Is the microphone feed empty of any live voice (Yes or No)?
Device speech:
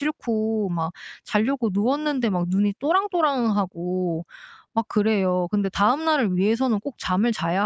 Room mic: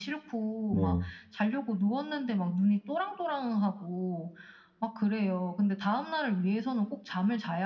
No